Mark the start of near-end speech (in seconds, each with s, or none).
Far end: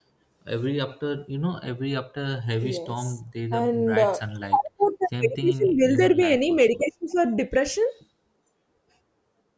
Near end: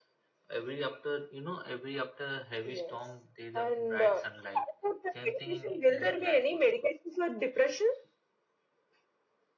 none